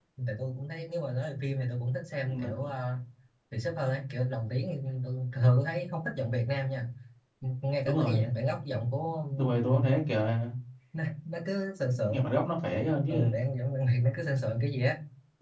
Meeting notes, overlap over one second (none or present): none